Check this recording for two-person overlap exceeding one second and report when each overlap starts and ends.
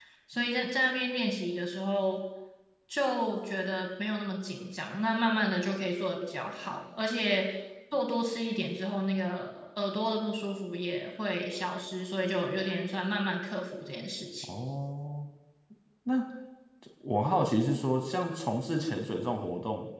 none

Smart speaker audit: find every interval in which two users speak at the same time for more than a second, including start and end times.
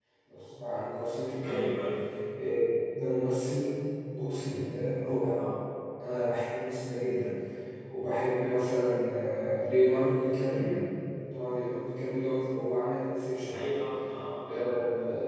none

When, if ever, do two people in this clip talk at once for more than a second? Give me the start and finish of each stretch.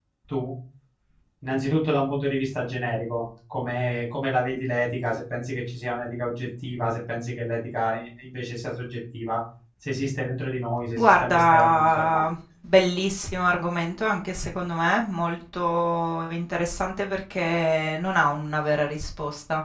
11.0-12.2

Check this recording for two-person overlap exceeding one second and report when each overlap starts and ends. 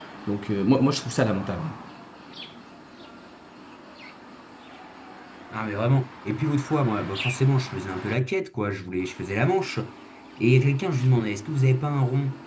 none

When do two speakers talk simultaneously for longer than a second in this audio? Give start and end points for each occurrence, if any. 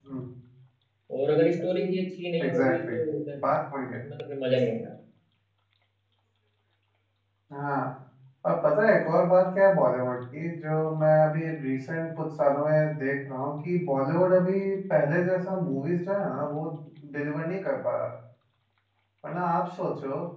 none

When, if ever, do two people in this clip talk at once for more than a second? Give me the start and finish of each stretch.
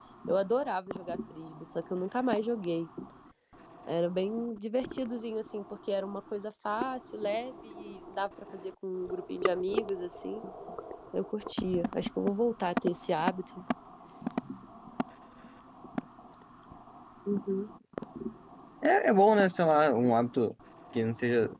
none

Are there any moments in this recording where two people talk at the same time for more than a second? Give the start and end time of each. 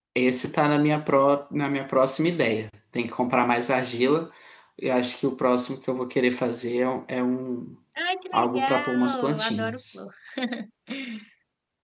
8.3-10.0

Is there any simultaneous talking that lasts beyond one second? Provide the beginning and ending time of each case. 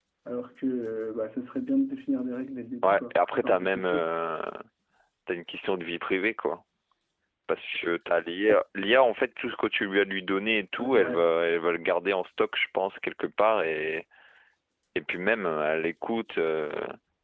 2.8-4.1

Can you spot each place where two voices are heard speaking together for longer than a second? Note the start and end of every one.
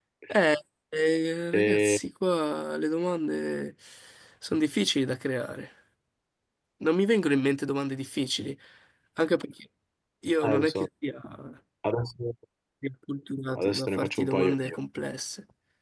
13.6-14.8

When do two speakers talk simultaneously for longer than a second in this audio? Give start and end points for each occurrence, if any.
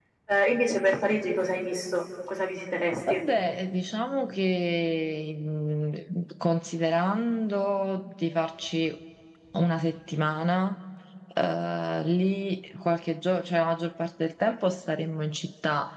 none

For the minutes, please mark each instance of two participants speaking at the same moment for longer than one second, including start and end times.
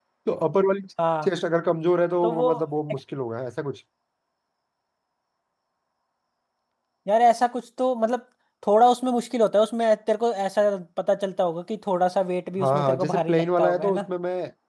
12.6-14.1

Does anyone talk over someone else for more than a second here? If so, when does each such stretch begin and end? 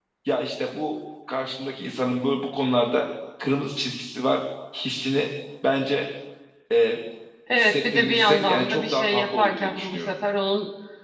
7.6-10.1

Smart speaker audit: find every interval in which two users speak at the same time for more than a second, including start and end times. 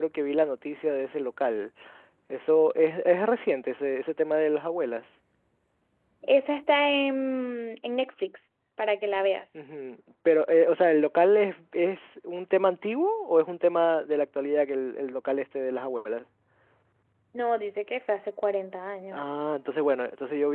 none

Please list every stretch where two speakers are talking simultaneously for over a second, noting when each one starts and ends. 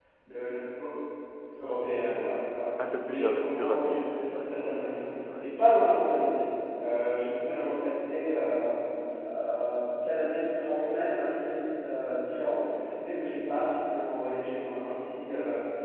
3.0-4.5

